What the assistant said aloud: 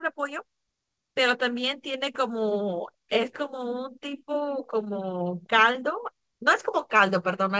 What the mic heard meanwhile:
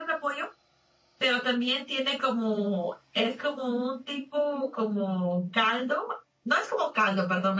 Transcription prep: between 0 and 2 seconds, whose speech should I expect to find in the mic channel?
echo only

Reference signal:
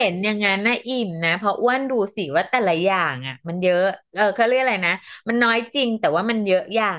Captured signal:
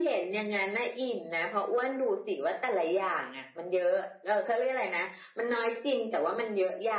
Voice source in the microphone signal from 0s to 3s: echo only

